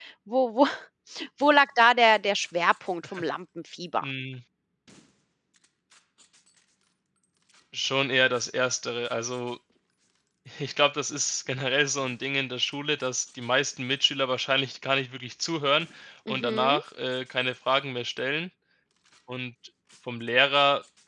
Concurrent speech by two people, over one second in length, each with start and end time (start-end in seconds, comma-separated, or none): none